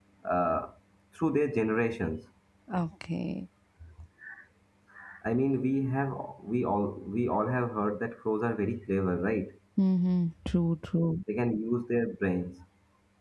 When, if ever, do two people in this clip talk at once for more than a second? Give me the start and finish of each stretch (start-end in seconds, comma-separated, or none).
none